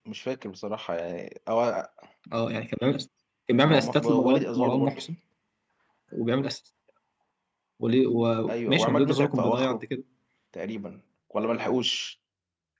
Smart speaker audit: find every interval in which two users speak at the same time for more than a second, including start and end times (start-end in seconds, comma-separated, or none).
3.6-5.0, 8.5-9.8